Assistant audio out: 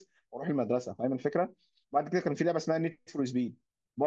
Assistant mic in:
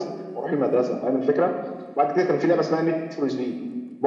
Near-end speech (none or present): none